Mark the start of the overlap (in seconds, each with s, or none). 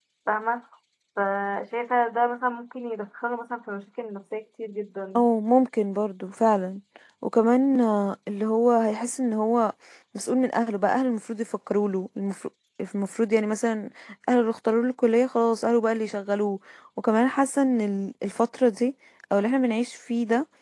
none